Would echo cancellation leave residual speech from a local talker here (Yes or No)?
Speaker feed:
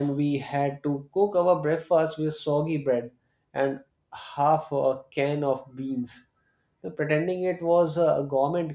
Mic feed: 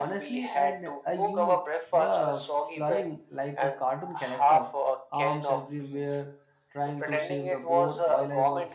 Yes